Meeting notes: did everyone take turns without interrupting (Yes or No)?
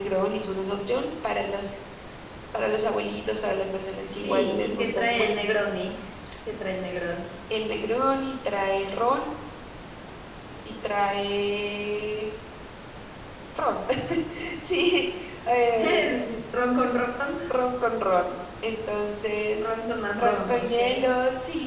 No